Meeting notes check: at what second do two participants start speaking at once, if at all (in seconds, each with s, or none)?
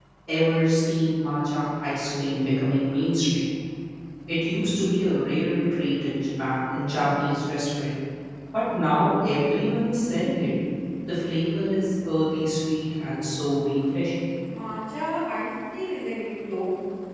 none